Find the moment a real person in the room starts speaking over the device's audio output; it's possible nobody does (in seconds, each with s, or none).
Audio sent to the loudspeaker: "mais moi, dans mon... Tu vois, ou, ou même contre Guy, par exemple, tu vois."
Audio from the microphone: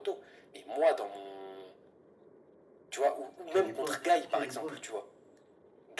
3.5 s